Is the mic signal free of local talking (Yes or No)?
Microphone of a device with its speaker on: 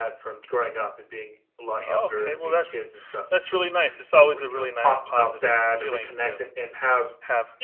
No